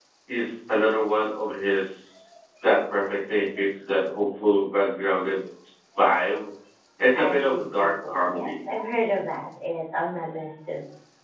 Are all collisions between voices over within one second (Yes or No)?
No